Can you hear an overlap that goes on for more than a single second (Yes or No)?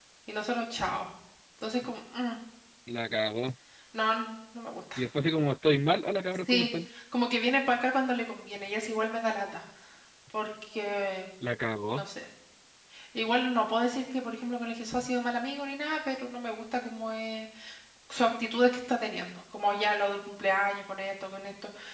No